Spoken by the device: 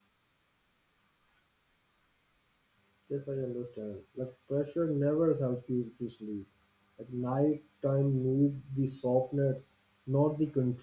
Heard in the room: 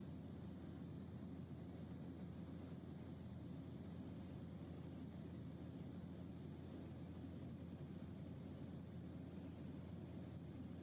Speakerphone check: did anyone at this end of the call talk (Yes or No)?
No